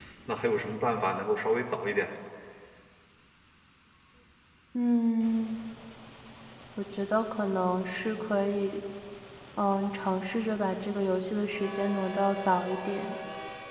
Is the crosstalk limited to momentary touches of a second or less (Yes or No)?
Yes